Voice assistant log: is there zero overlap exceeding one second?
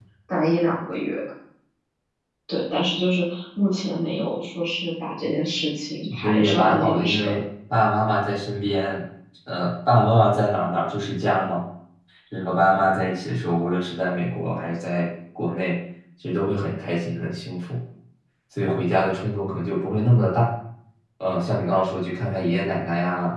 No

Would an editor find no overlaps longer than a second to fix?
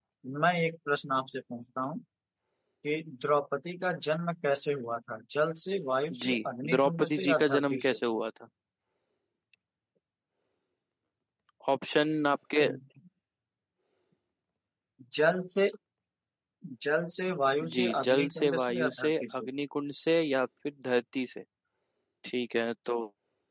No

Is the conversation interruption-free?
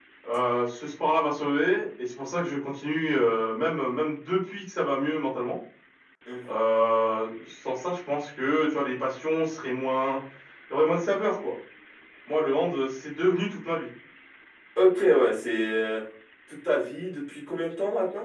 Yes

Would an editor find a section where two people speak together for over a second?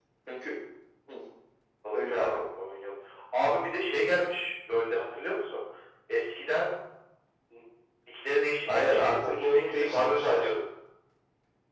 Yes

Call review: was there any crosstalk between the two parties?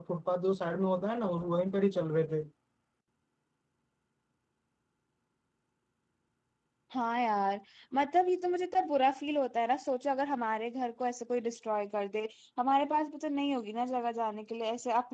No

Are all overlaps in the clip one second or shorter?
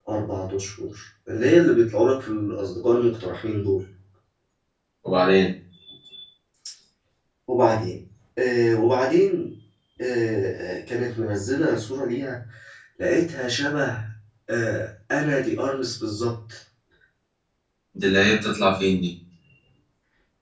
Yes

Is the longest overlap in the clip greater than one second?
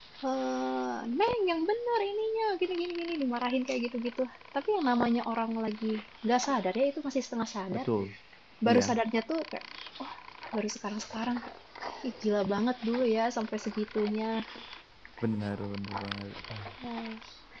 No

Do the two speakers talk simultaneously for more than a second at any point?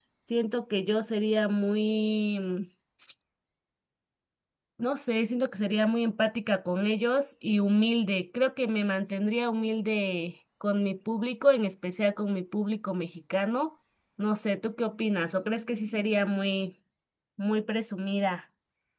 No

